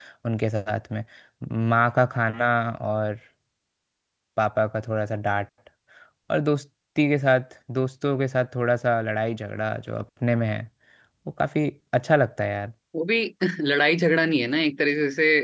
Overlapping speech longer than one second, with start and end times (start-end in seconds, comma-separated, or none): none